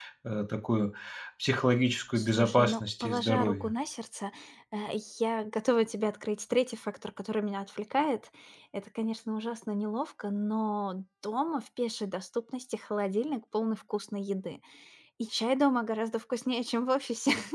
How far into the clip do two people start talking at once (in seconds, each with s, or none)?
2.2 s